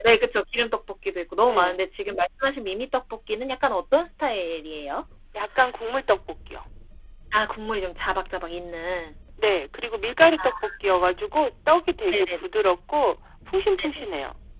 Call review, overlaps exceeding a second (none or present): none